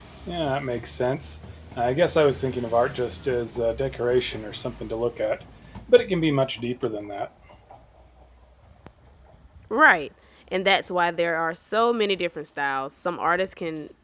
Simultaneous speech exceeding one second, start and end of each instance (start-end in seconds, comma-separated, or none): none